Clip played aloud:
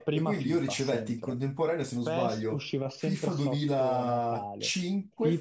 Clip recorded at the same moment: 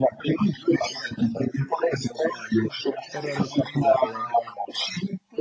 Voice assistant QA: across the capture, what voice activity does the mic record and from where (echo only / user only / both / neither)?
both